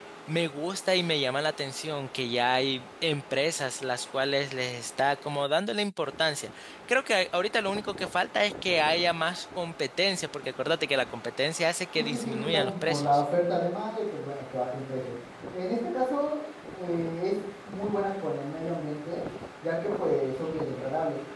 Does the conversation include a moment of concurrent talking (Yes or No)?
Yes